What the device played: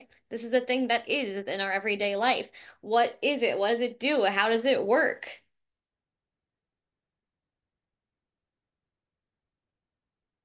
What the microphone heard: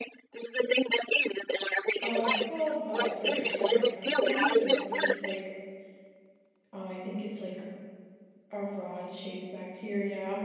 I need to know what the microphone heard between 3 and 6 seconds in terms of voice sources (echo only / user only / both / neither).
both